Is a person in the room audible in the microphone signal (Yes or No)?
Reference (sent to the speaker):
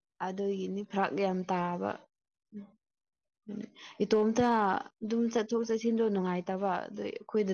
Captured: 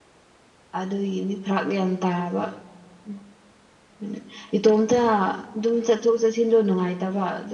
No